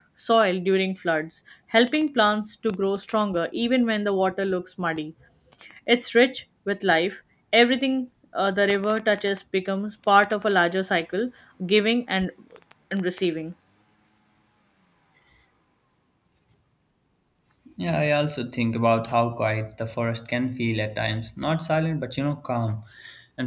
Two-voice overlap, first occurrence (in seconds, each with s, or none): none